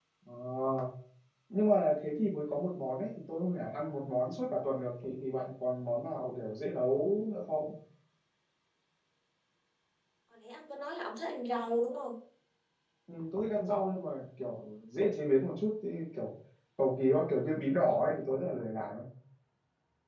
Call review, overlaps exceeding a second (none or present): none